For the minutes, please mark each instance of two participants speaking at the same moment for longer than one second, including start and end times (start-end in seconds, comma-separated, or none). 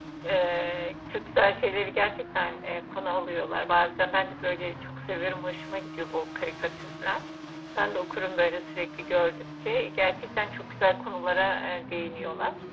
none